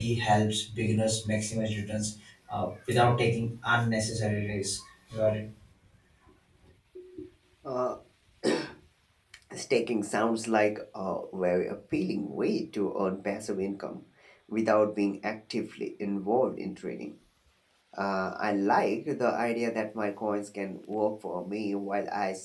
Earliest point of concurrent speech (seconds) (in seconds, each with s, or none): none